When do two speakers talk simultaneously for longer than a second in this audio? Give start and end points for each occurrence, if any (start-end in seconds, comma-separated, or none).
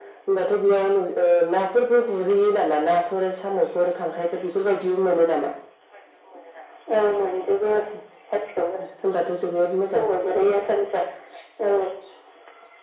none